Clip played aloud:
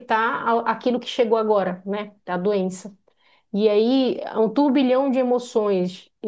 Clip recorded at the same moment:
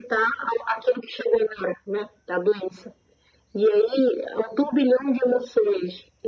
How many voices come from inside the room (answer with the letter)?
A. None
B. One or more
A